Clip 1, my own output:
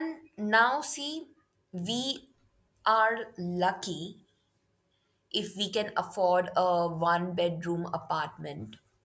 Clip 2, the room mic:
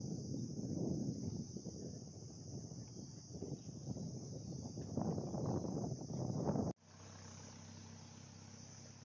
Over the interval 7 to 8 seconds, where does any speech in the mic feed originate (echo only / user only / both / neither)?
neither